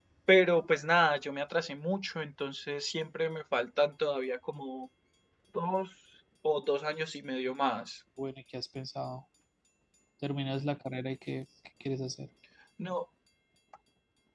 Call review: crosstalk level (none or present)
none